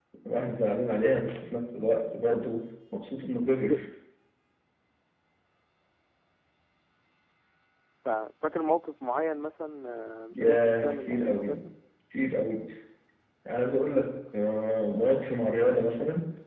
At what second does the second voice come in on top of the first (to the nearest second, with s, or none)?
10 s